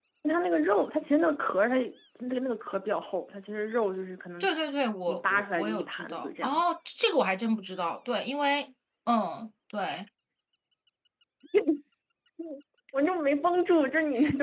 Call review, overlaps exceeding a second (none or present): present